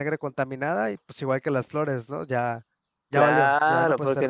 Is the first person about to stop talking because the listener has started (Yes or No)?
Yes